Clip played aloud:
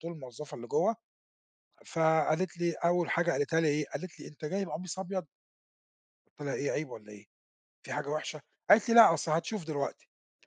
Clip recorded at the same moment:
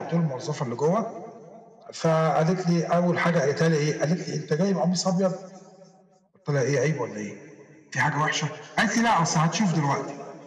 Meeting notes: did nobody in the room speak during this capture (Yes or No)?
Yes